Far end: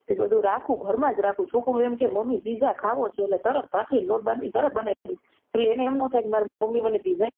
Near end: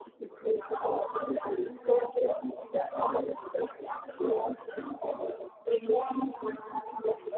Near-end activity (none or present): none